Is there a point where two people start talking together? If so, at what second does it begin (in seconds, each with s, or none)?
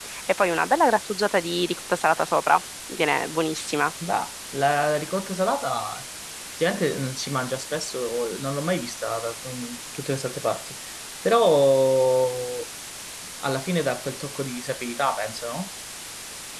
none